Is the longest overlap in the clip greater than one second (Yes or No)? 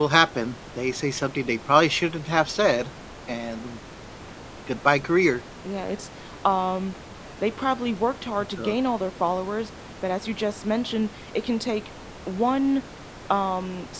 No